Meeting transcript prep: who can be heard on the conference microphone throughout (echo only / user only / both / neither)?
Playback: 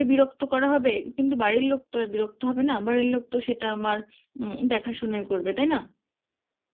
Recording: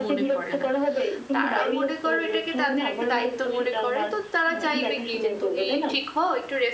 both